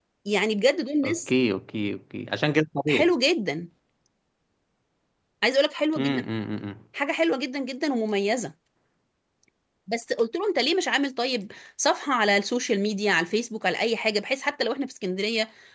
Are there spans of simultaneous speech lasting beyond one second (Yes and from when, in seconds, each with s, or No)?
No